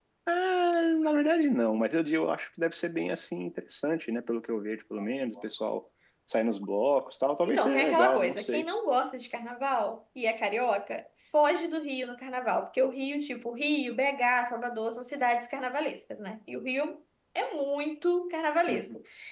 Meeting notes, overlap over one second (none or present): present